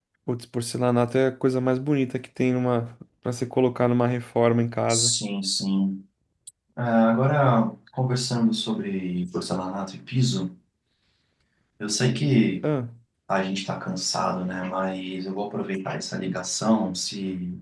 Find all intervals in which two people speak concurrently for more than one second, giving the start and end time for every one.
none

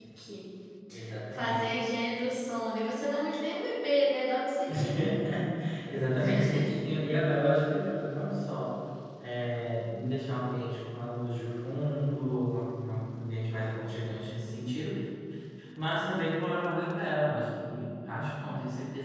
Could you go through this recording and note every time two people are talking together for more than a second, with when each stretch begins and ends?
none

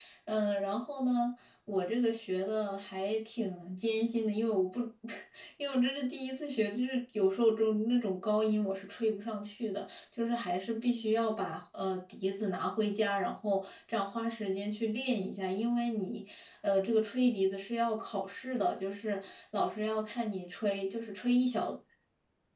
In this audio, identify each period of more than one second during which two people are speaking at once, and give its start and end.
none

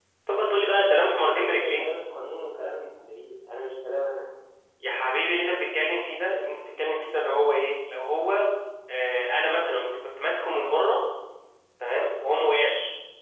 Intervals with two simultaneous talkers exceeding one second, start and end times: none

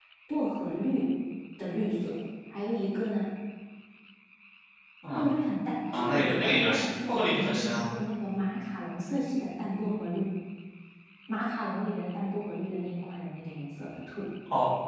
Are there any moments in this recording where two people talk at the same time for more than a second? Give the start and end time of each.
5.9-7.9

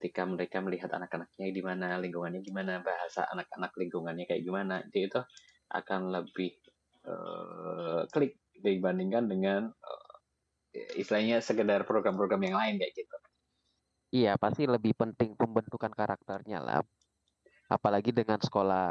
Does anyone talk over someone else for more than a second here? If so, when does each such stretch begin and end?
none

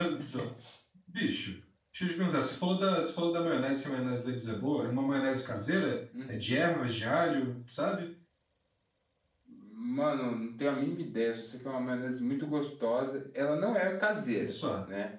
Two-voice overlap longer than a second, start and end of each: none

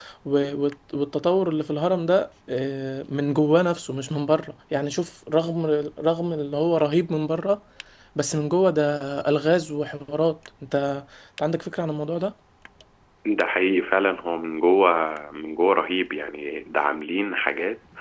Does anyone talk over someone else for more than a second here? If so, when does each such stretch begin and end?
none

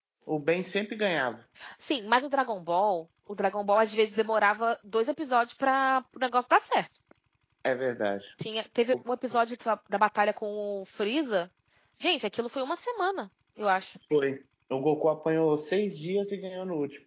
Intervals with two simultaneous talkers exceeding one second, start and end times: none

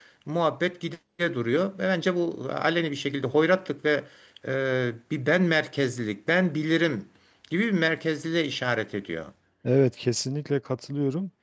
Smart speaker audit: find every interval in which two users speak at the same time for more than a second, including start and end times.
none

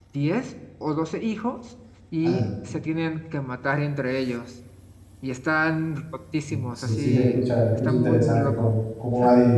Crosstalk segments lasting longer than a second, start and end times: 6.8-8.8

